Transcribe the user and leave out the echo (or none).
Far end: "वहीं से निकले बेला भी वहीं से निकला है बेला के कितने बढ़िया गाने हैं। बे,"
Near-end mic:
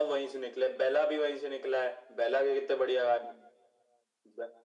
none